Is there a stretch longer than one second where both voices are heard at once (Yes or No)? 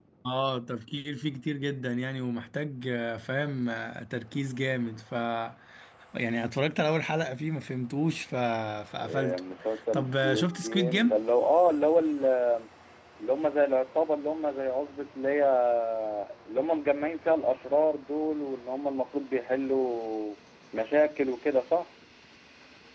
Yes